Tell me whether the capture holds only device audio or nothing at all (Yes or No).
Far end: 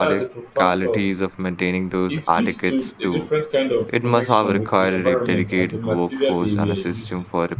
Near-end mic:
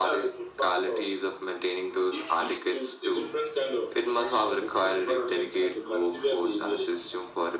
Yes